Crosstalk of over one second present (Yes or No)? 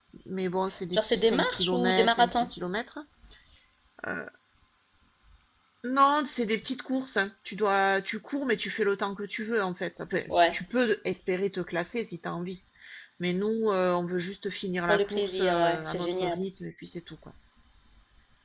Yes